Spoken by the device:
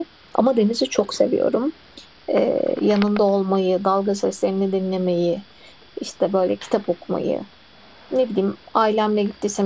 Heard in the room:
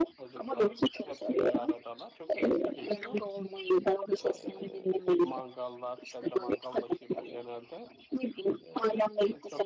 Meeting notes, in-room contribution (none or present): present